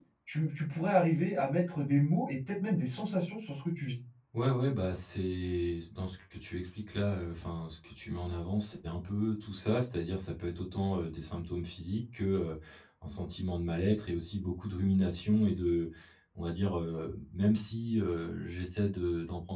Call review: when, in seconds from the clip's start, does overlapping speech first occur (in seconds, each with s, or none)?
none